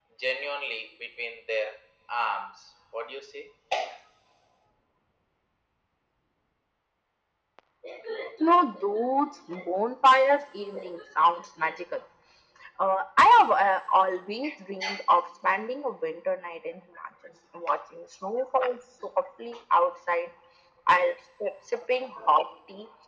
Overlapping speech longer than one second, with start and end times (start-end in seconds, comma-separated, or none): none